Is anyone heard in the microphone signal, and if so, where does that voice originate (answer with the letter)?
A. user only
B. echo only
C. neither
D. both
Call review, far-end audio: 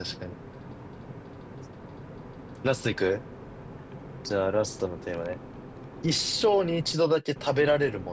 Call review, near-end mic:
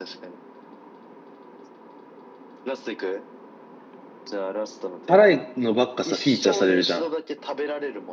D